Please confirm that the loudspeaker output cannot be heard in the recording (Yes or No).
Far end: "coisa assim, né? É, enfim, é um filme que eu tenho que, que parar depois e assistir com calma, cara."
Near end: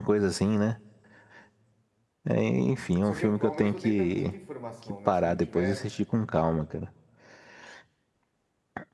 No